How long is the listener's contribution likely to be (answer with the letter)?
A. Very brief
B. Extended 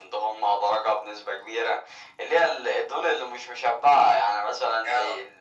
A